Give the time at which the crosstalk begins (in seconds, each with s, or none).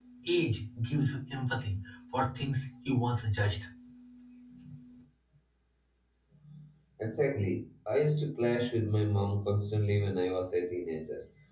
none